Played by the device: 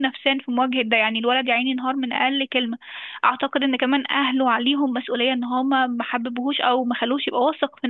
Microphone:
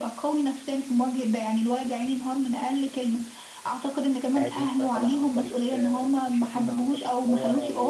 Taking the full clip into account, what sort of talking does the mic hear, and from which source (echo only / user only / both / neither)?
both